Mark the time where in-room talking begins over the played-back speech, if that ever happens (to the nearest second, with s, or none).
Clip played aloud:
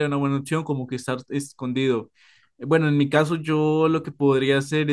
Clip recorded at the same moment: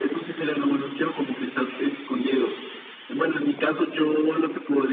none